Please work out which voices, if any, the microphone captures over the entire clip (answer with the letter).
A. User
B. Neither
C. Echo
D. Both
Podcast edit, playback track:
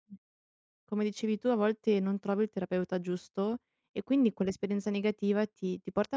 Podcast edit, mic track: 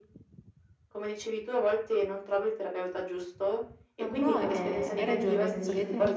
D